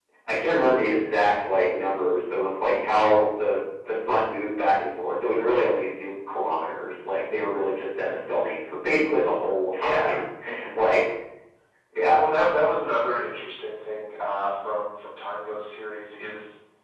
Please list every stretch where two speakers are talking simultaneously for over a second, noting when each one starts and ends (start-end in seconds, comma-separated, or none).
none